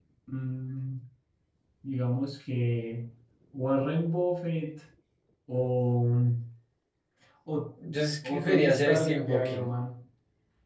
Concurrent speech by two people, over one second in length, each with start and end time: 8.2-9.6

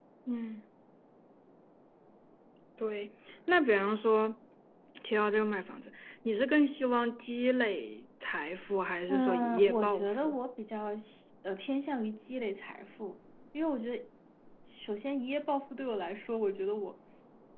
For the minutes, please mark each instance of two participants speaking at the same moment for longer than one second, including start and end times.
9.1-10.4

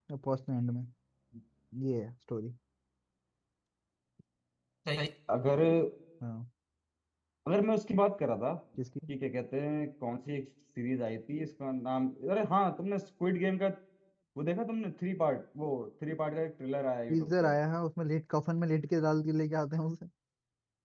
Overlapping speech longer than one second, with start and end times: none

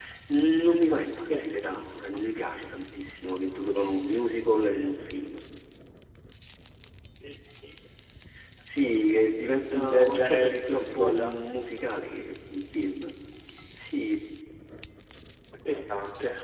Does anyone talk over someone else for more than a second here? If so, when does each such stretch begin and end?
9.7-11.4

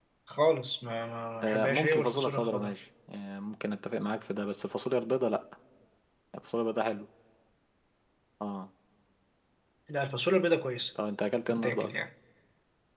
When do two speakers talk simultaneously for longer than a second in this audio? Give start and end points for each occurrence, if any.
1.4-2.8

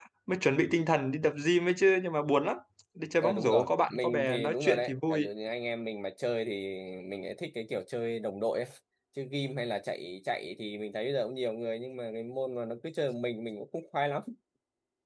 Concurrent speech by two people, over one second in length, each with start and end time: 3.2-5.2

